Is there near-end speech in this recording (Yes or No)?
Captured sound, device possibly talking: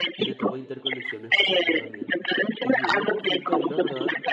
Yes